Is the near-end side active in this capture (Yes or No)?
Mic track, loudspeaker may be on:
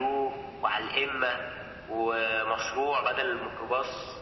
No